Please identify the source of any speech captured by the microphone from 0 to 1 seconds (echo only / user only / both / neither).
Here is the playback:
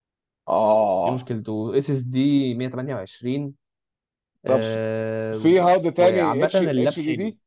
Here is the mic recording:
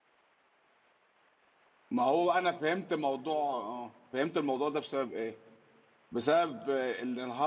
neither